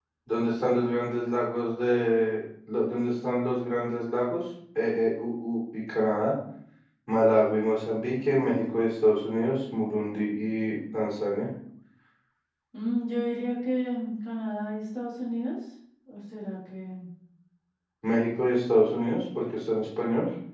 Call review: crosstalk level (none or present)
none